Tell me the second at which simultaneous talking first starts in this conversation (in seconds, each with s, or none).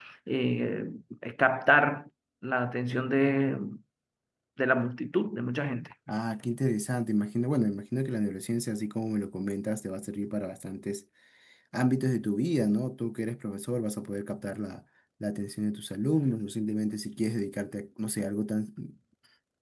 none